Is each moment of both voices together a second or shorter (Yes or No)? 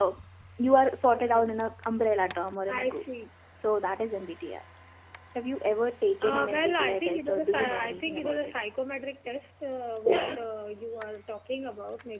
No